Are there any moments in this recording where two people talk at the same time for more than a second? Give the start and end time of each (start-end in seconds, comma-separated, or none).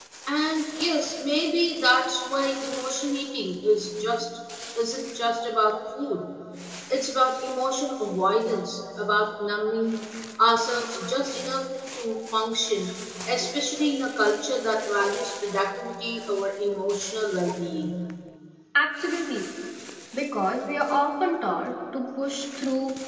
none